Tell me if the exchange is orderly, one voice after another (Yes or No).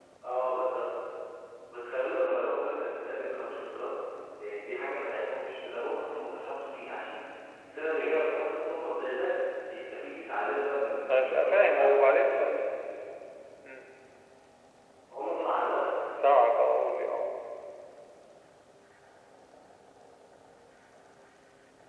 No